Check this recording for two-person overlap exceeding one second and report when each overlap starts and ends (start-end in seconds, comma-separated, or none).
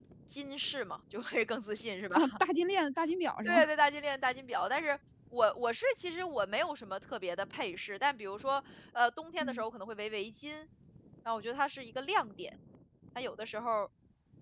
none